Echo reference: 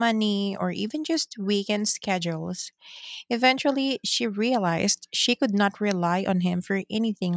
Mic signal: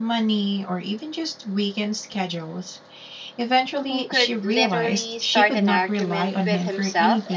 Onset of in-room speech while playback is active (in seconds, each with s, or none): 3.9 s